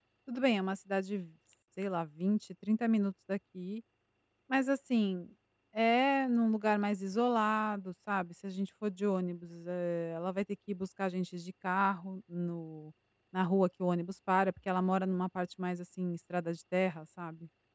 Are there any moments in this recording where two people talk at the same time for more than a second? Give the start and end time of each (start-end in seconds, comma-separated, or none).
none